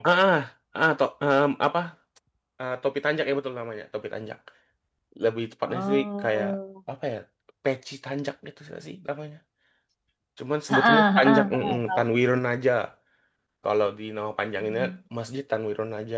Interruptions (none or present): present